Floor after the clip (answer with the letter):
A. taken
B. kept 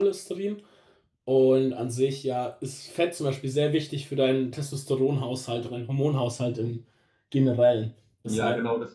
A